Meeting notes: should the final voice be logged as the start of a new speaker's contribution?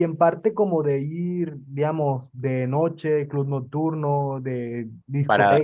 Yes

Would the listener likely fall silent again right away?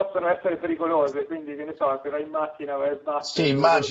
No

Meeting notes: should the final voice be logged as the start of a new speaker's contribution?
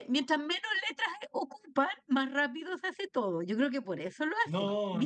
Yes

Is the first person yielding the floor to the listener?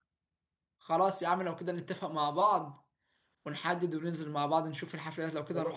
Yes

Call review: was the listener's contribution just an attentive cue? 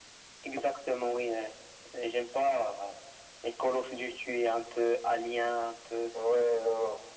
No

